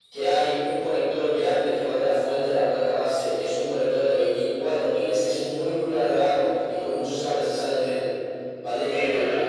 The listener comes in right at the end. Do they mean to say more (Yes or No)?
Yes